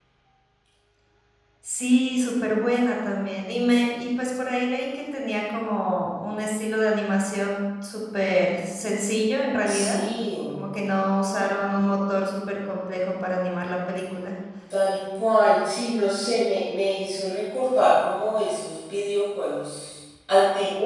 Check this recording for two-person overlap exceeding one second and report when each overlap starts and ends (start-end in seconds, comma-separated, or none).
none